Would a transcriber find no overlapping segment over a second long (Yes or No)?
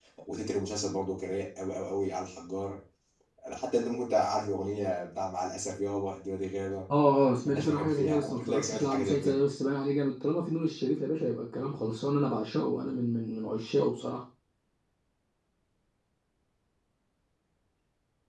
No